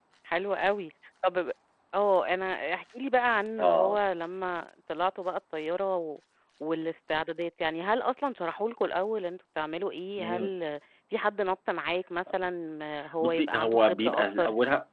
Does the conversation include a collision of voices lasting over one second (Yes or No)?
Yes